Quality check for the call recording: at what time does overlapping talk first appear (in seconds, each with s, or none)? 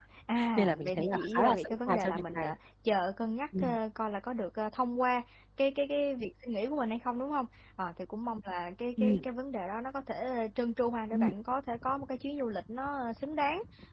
0.6 s